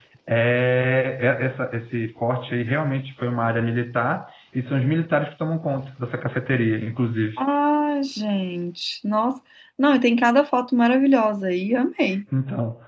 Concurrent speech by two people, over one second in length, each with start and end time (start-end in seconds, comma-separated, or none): none